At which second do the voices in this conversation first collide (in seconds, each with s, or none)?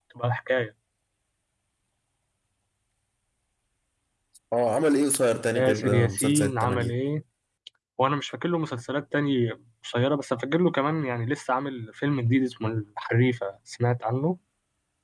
5.5 s